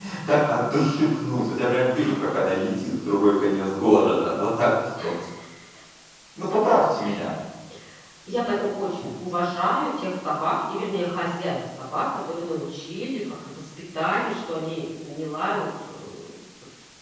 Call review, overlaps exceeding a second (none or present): none